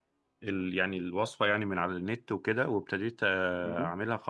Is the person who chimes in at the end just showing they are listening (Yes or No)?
Yes